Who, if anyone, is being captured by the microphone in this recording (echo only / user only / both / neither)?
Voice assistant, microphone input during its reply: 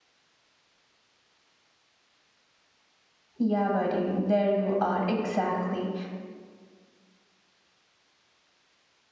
user only